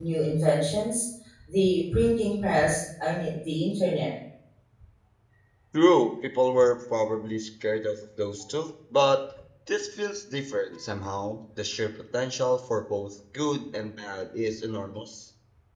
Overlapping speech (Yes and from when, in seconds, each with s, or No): No